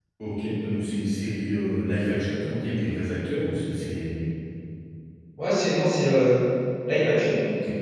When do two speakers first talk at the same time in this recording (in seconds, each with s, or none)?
none